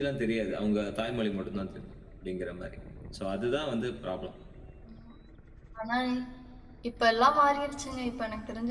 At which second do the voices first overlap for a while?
none

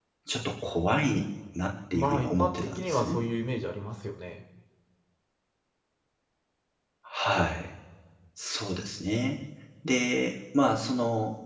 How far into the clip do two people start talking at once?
1.9 s

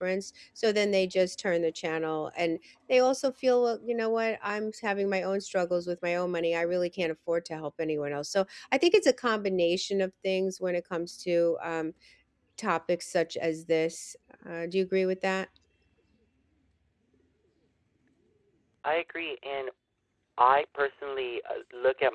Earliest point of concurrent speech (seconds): none

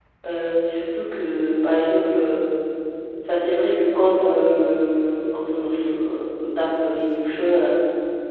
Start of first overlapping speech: none

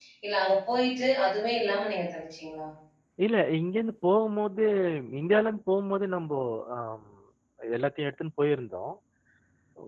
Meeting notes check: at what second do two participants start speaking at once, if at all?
none

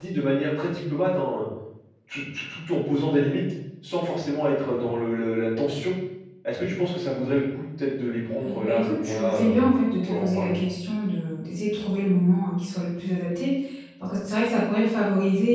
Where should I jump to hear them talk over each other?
8.4 s

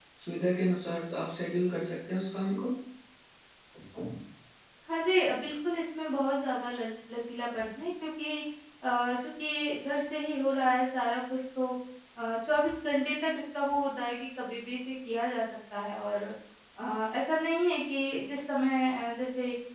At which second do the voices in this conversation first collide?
none

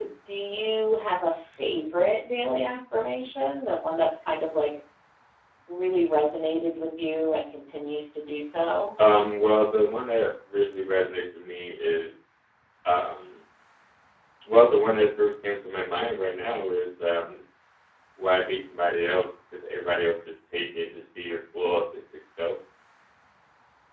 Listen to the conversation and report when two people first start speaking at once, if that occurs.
none

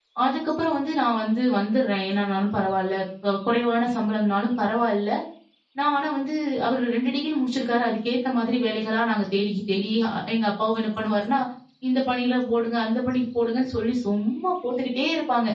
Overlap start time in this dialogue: none

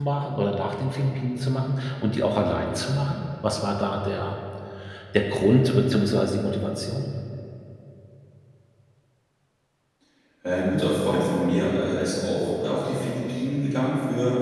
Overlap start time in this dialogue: none

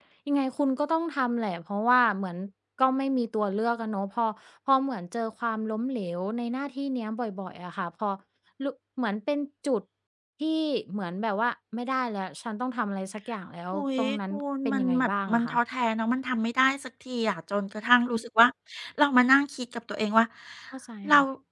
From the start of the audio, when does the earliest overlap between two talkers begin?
13.7 s

